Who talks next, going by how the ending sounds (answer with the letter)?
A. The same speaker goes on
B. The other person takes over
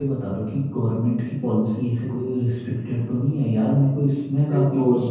B